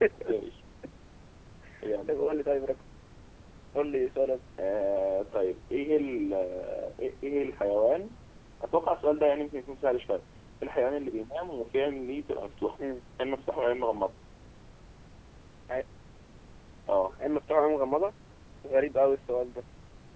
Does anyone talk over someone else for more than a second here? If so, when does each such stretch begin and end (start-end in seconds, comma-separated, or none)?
none